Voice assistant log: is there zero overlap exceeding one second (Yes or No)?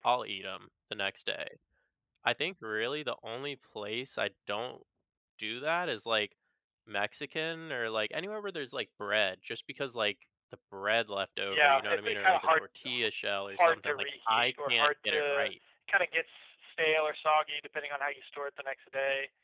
No